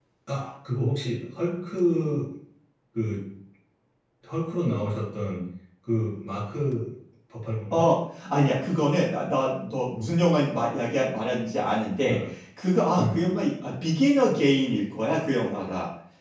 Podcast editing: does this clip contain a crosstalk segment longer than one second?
No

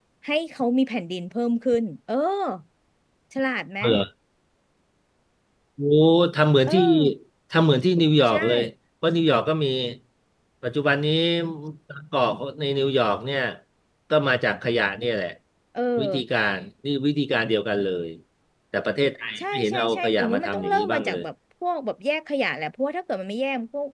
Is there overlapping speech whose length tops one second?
Yes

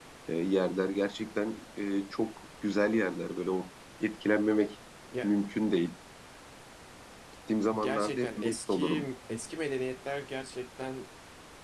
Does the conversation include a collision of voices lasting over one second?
Yes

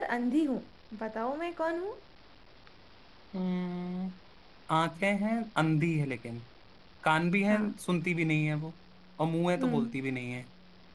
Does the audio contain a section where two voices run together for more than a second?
No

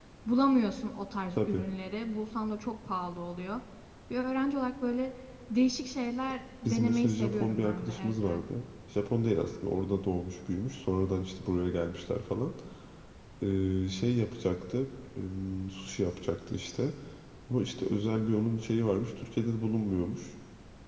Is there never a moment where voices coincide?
No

